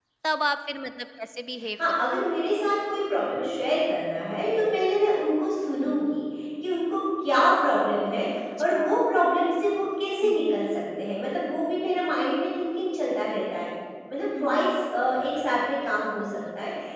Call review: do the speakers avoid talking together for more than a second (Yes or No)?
Yes